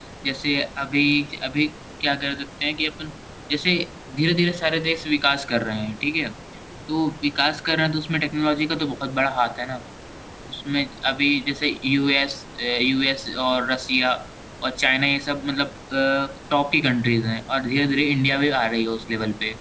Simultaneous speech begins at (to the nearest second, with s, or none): none